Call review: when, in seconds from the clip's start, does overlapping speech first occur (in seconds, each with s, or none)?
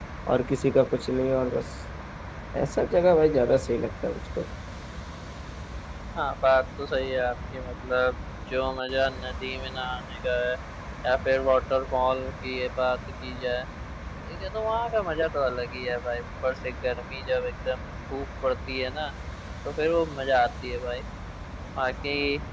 none